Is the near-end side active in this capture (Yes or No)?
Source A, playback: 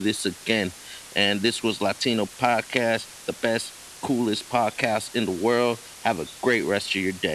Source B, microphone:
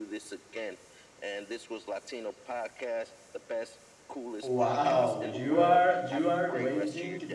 Yes